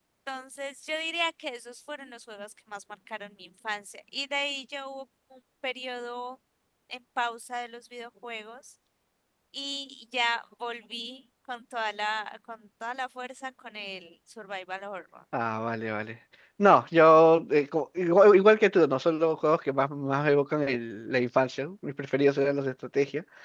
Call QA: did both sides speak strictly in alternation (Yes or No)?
Yes